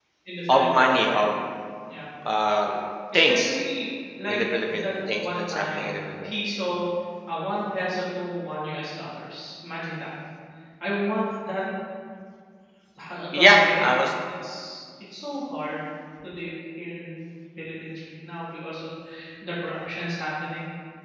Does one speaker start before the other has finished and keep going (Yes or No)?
Yes